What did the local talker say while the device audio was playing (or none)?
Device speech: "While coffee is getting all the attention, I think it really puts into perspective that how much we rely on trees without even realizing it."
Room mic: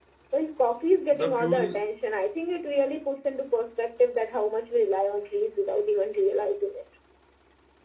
the fuel